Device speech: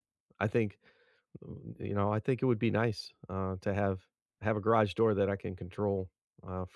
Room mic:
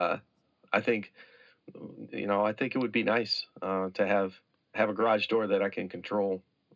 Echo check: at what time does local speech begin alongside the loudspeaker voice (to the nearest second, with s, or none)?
none